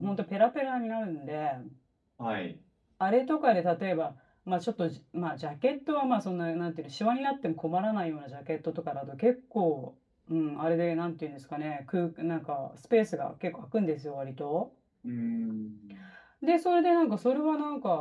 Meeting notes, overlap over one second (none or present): none